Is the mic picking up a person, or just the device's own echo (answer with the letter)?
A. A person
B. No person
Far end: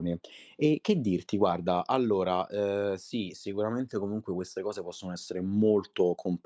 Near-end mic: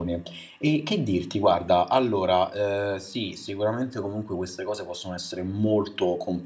B